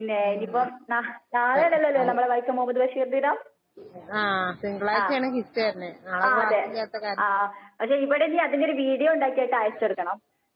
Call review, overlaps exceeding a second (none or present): none